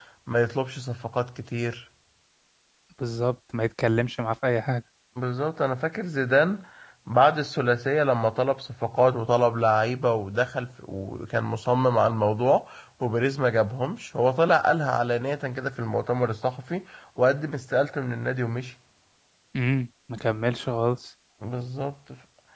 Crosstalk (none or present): none